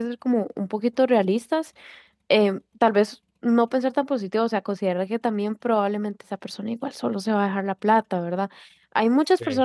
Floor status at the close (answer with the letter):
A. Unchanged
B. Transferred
A